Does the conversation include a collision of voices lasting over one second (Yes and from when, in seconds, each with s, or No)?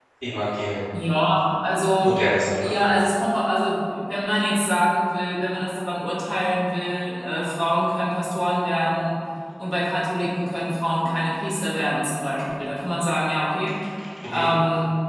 No